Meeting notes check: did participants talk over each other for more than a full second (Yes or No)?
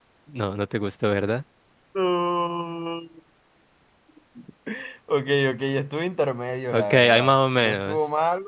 Yes